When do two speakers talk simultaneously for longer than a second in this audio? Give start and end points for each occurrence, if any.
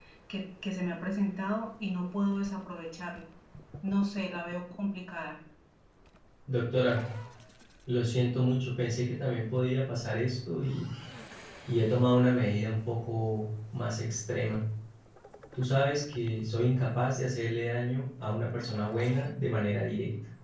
none

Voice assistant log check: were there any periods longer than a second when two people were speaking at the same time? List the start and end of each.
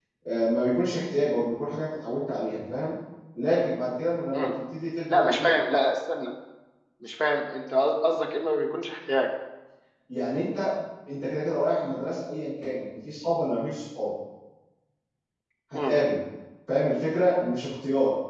none

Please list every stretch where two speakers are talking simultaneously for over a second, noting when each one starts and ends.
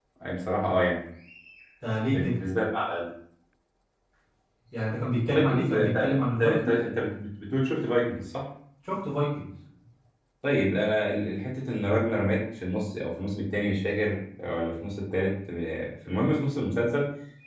5.3-6.7

